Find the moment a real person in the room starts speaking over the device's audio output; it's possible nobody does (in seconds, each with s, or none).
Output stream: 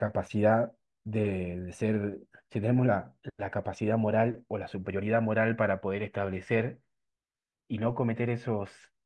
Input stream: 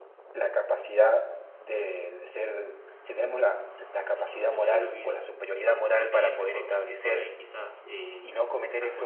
4.2 s